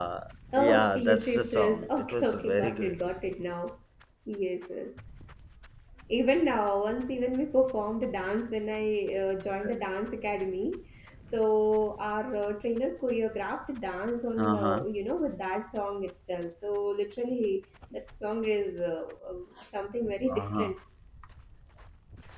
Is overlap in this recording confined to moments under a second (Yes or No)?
No